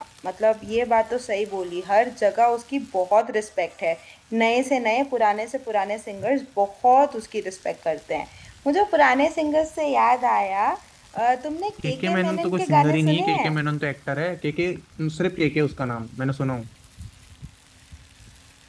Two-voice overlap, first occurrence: 11.8 s

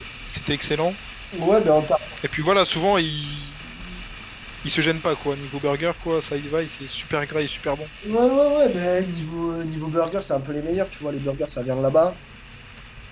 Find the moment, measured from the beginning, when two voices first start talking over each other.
none

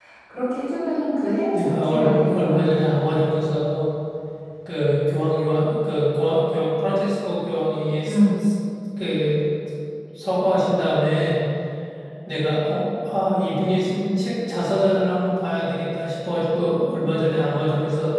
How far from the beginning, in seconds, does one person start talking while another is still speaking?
1.5 s

